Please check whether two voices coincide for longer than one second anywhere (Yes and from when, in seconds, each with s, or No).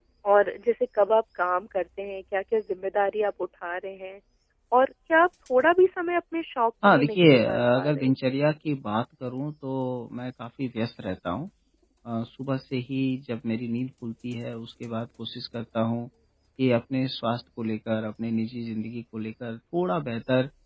Yes, from 6.8 s